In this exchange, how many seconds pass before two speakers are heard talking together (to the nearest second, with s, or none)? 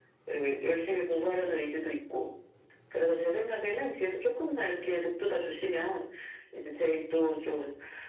none